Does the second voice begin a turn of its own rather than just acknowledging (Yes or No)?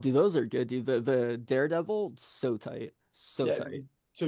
Yes